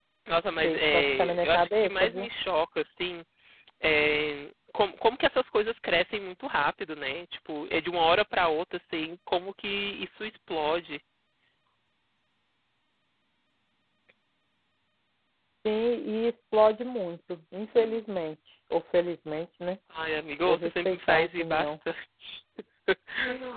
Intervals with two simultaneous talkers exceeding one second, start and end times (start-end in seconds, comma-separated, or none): 0.6-2.3, 20.4-21.7